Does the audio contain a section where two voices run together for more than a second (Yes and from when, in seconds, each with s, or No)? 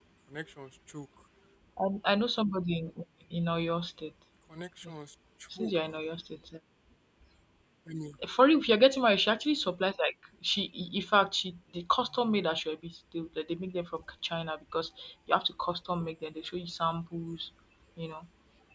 No